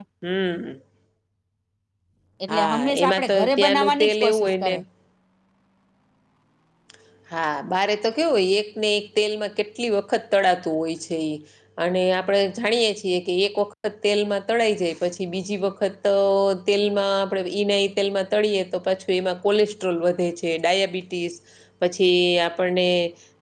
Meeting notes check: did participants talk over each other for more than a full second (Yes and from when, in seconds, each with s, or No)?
Yes, from 2.5 s